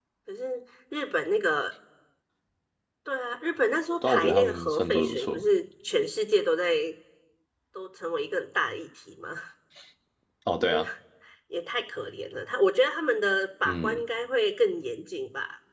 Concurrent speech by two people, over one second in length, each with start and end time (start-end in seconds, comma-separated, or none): 4.0-5.5